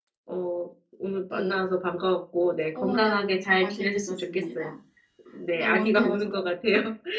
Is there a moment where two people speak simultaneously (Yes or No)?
Yes